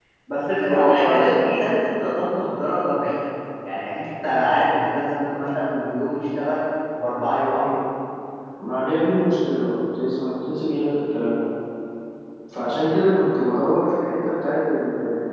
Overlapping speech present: Yes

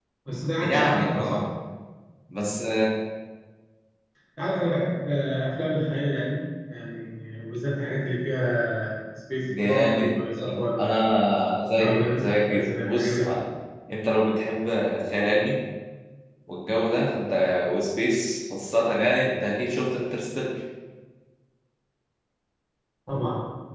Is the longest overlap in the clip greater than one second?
Yes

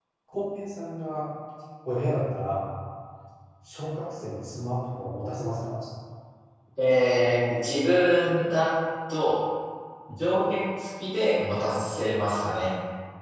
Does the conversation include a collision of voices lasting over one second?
No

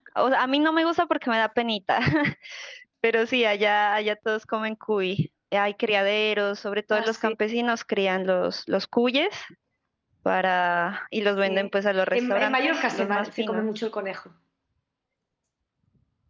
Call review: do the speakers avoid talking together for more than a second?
No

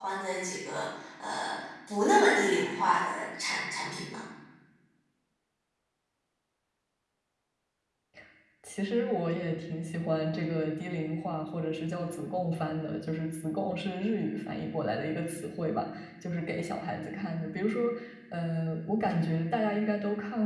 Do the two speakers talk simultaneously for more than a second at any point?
No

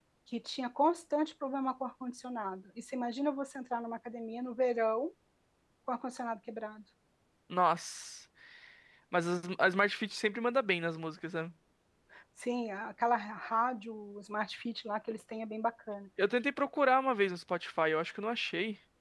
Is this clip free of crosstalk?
Yes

